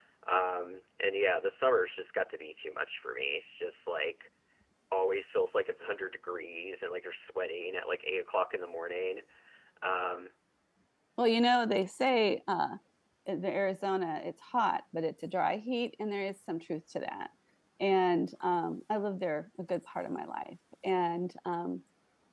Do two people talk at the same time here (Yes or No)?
No